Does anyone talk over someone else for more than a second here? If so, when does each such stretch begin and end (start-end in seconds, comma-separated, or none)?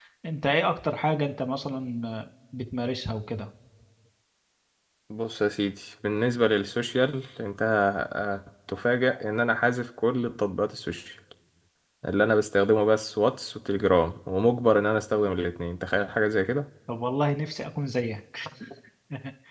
none